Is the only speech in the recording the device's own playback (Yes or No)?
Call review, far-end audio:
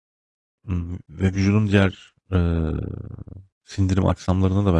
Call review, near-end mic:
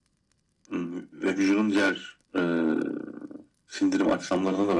Yes